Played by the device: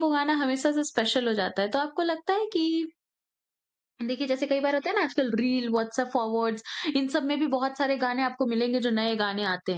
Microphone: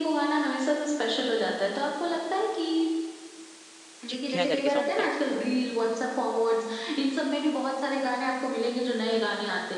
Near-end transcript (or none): चिट्ठियाँ करके सॉन्ग था।